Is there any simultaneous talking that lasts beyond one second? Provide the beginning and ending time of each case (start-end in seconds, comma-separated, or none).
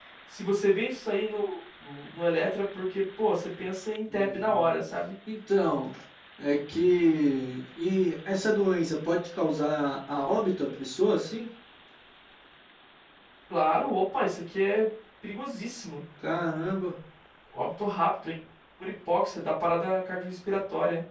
none